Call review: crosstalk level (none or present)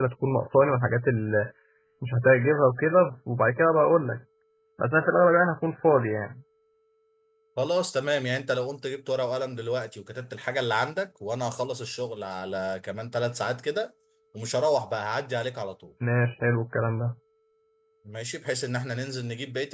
none